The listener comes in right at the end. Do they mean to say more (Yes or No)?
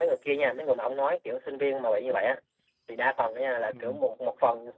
No